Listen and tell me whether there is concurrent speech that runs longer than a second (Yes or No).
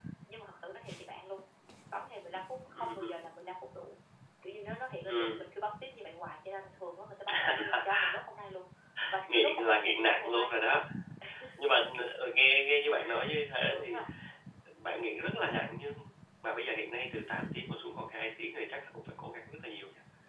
Yes